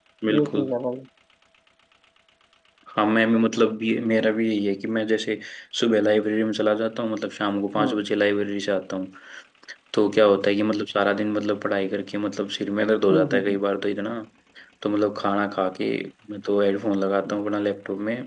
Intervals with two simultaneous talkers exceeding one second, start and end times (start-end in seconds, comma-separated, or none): none